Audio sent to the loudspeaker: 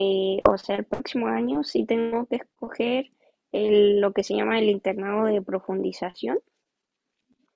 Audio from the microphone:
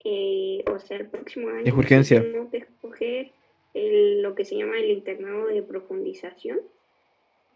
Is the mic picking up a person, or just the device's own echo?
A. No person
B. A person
B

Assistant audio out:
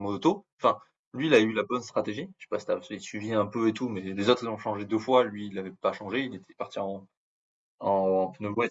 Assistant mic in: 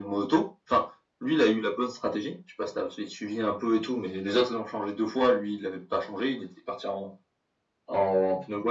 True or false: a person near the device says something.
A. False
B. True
A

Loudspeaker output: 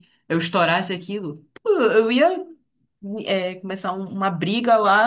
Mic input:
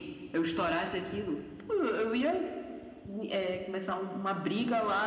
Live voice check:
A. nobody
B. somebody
A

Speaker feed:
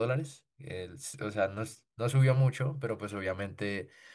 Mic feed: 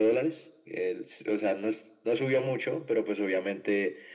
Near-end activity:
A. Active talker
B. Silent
B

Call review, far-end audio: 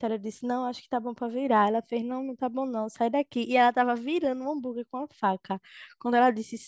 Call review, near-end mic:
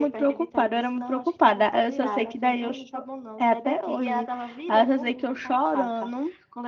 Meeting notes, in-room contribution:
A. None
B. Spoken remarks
B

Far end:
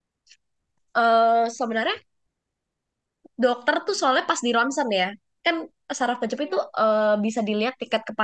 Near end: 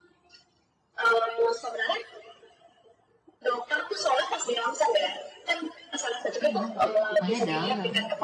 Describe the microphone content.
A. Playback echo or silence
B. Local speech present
B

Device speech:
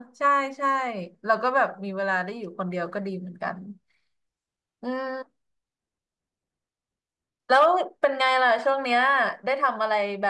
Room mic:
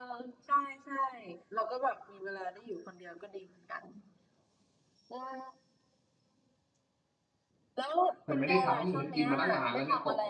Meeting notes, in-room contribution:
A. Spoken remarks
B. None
A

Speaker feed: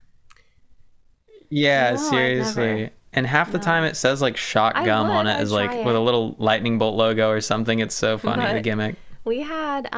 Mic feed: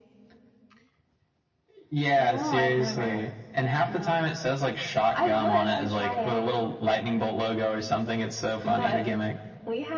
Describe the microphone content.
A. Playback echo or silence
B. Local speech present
A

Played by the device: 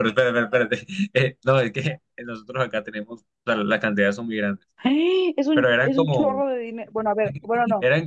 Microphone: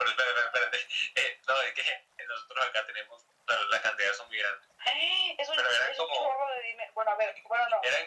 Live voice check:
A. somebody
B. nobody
B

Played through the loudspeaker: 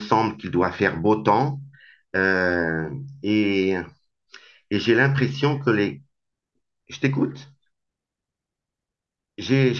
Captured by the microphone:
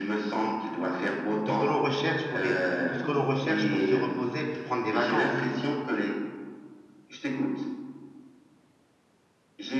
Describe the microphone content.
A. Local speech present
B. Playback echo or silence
A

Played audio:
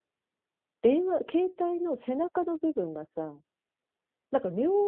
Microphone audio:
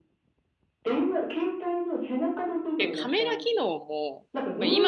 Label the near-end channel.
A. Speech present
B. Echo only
A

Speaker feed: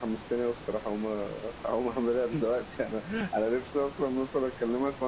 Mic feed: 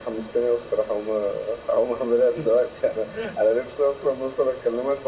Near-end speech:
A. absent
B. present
A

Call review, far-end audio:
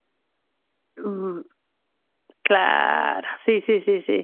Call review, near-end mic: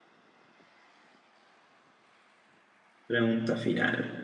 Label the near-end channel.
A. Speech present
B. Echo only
A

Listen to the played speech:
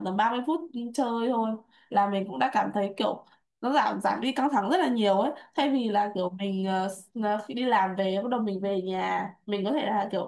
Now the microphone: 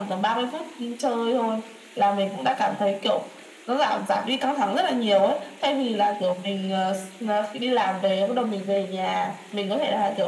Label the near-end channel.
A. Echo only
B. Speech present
A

